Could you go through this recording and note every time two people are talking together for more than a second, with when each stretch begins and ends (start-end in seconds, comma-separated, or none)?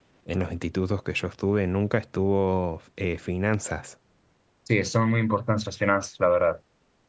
none